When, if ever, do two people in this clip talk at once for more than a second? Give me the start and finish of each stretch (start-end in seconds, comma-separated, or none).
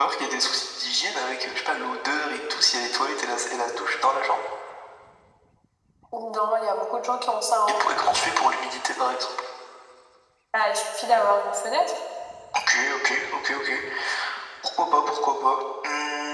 none